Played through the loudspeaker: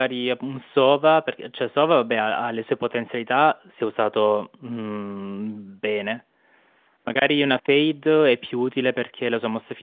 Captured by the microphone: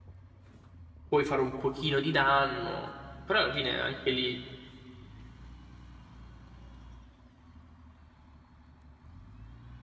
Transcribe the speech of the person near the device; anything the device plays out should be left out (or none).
puoi fare un pochino di danno, però alla fine anche lì,